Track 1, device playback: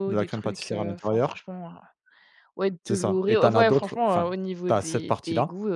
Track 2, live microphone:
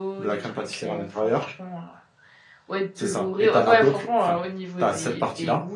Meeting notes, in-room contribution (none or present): none